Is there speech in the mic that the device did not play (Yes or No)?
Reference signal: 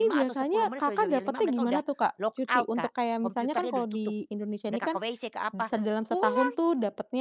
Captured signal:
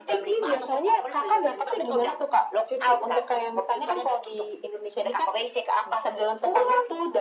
No